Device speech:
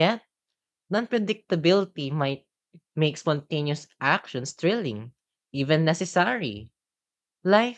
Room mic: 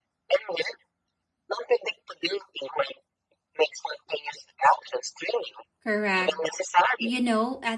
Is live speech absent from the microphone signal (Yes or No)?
No